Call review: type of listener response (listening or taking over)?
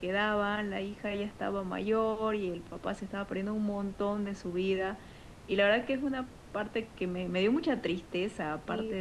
taking over